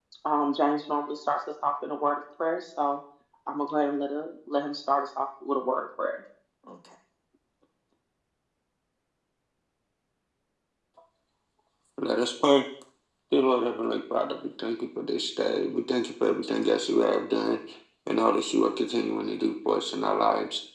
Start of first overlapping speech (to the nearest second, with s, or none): none